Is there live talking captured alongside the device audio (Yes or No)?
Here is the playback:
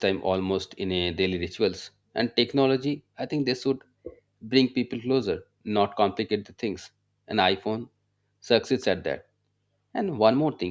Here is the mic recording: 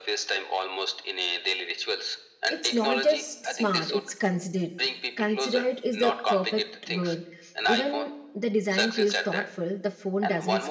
Yes